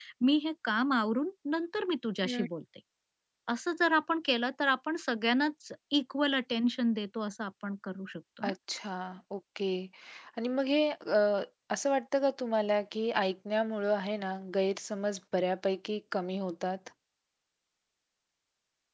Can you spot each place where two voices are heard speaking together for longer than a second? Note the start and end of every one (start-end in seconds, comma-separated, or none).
none